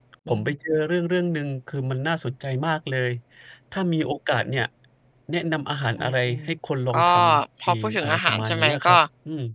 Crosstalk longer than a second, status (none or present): present